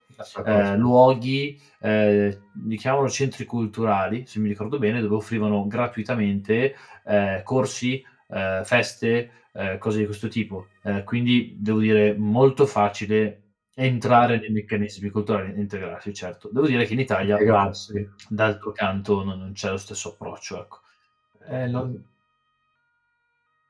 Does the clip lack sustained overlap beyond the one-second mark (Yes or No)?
Yes